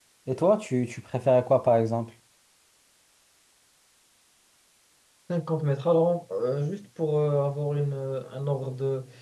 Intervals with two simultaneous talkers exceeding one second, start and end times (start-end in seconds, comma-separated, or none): none